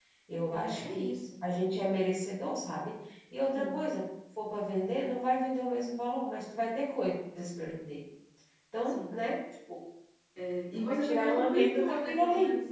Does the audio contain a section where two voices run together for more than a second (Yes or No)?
Yes